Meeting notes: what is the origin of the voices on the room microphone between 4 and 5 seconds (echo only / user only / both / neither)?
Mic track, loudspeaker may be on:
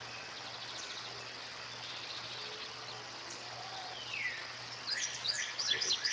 neither